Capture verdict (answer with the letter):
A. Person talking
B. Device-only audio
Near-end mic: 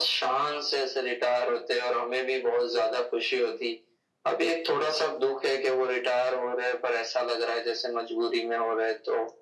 B